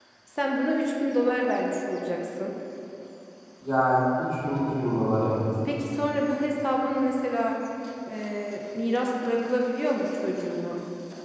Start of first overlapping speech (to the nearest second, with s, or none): none